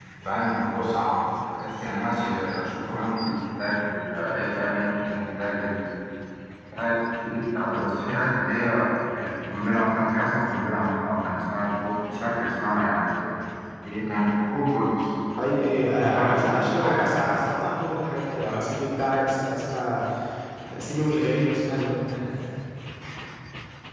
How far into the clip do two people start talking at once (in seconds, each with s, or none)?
15.9 s